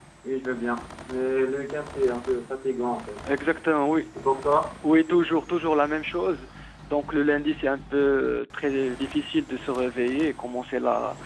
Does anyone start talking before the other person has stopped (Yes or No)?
No